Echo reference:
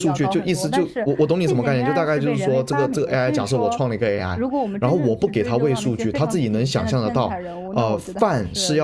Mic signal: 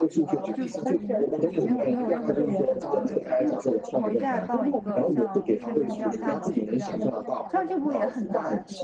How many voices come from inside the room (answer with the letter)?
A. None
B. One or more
B